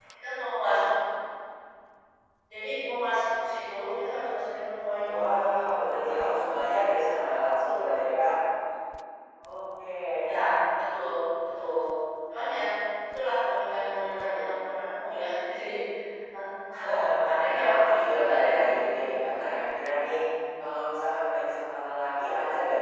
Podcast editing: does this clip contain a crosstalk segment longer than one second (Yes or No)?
Yes